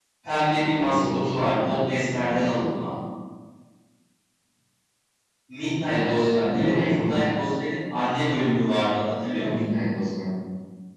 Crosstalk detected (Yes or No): Yes